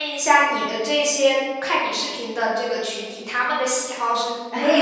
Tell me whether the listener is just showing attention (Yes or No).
No